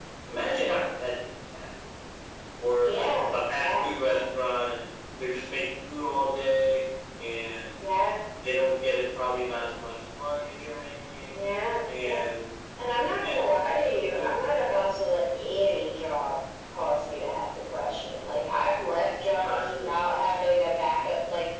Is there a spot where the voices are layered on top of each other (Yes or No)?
Yes